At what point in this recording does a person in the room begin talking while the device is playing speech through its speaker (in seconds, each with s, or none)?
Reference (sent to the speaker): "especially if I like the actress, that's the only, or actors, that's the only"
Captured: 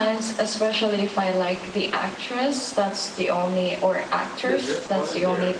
4.4 s